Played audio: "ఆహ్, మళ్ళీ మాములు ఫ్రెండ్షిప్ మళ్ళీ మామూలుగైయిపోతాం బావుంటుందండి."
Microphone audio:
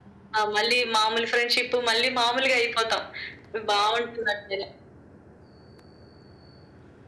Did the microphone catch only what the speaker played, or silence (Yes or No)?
Yes